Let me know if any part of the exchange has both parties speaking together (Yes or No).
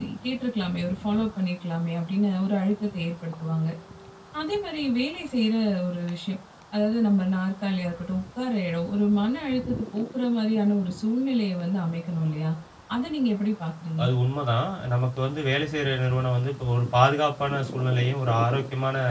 No